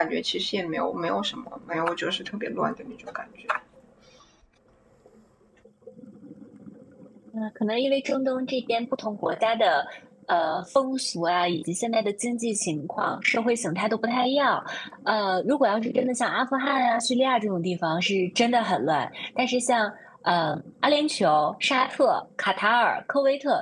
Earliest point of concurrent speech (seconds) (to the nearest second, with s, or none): none